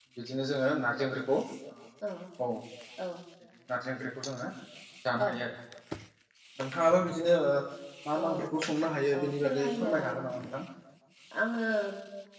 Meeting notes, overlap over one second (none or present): present